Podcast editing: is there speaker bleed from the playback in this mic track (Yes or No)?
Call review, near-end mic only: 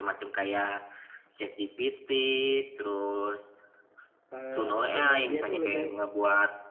Yes